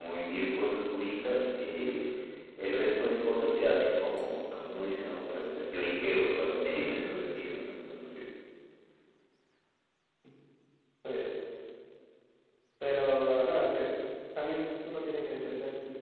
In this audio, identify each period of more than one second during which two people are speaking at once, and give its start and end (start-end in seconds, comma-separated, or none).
none